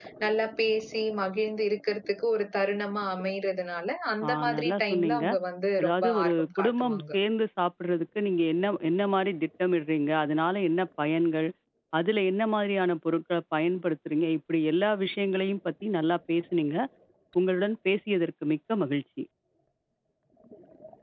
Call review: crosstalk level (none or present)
present